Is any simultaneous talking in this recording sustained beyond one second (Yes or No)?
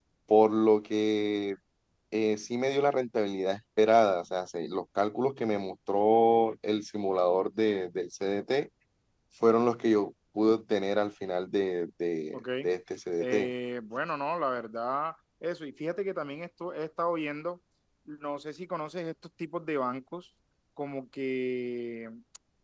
No